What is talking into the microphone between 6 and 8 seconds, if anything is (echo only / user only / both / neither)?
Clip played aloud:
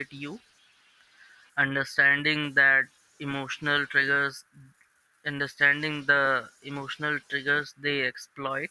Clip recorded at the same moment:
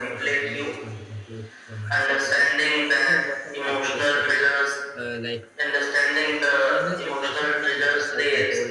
both